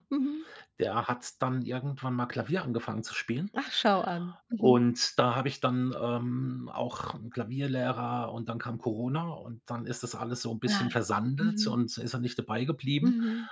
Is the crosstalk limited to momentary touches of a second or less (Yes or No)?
Yes